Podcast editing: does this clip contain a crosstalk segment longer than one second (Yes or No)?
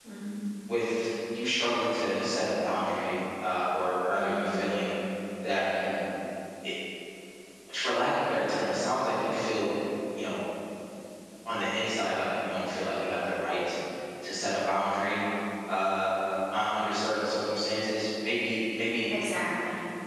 No